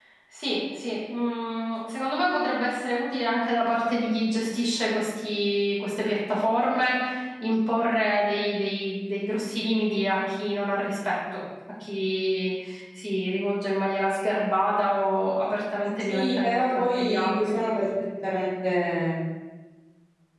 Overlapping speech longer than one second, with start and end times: 16.0-17.6

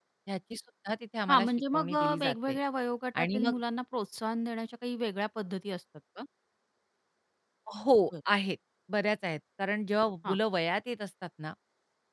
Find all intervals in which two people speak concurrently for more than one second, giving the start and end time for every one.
1.3-2.6

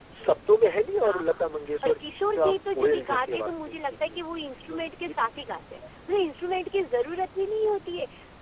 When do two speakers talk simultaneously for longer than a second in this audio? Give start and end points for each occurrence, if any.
1.8-4.2

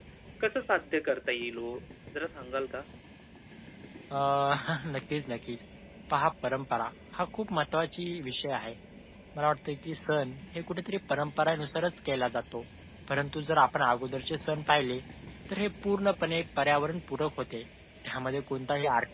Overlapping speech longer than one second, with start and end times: none

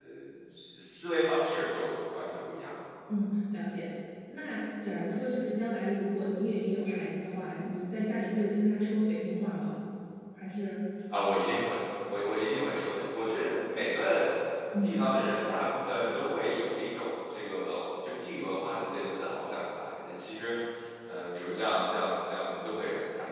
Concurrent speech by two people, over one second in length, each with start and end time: none

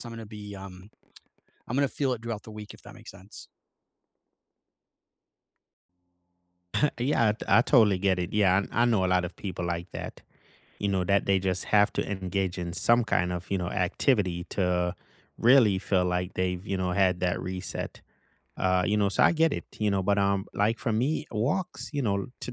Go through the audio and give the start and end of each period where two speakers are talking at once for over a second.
none

